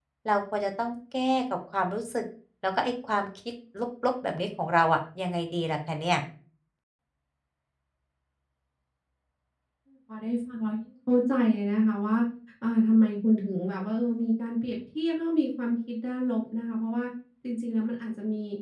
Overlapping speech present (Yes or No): No